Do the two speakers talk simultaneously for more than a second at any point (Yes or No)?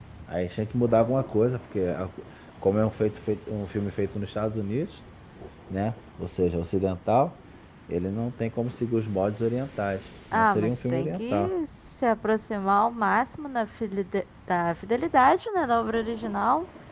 Yes